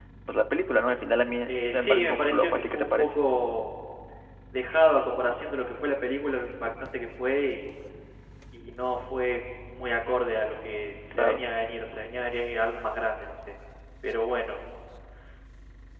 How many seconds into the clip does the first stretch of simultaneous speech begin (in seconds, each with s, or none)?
1.5 s